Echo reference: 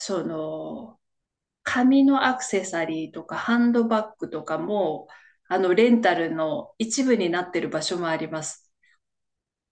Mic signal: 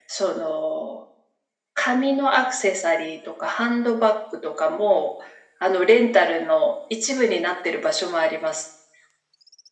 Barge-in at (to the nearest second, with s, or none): none